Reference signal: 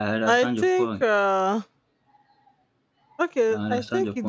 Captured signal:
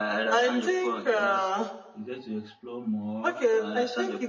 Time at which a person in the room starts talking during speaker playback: 1 s

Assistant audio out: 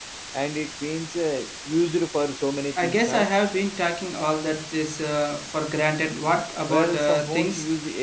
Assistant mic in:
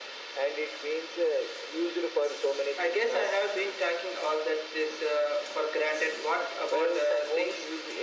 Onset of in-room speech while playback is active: none

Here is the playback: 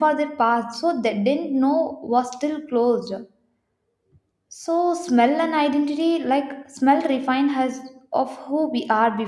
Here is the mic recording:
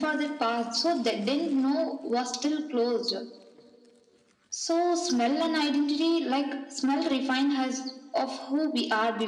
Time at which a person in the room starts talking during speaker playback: none

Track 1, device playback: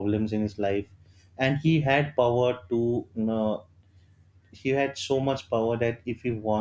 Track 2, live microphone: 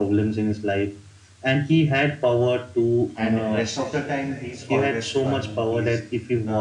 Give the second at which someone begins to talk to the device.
3 s

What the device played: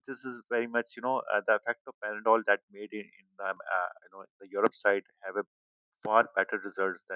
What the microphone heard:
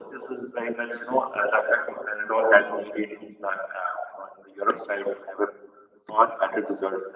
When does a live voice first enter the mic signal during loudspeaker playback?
none

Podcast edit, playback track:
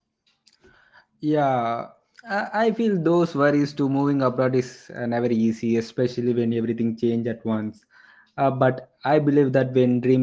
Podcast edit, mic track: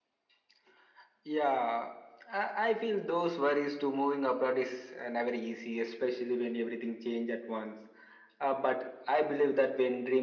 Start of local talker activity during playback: none

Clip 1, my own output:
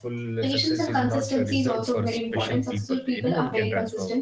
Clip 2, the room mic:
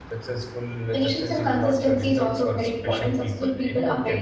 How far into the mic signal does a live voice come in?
none

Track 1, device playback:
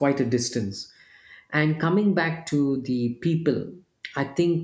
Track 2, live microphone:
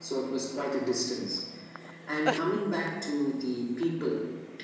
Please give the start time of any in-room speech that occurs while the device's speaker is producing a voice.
none

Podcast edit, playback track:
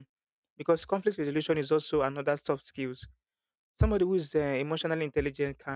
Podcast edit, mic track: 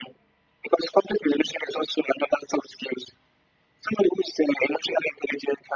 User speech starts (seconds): none

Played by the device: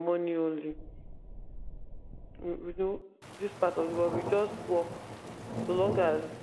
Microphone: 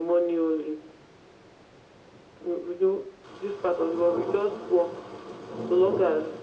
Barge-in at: none

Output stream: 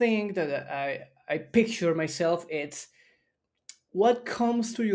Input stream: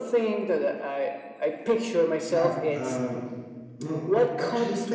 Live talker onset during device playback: 2 s

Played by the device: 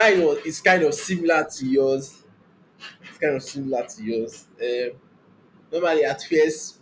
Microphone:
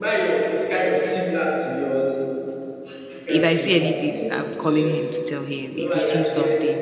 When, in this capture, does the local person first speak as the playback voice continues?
3 s

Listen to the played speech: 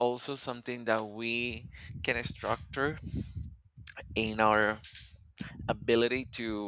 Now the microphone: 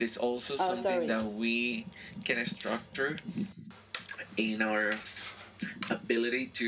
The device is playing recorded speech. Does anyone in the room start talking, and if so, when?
1 s

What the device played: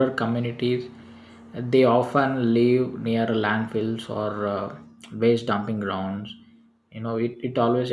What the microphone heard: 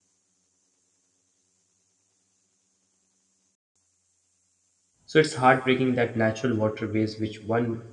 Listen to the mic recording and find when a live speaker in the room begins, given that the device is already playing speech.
5 s

